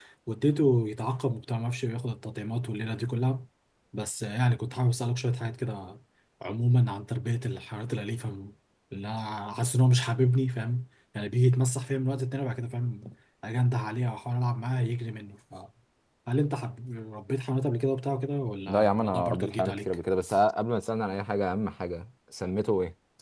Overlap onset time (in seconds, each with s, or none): 18.7 s